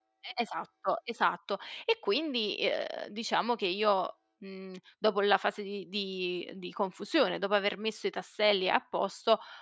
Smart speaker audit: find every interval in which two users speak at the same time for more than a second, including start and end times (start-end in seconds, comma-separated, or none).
none